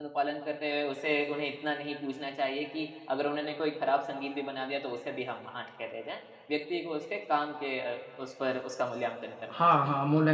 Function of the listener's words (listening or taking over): taking over